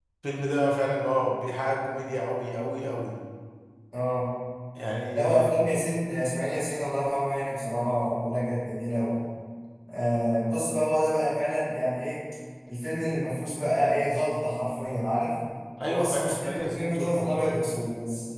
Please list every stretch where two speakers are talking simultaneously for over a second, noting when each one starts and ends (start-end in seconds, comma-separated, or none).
15.8-17.6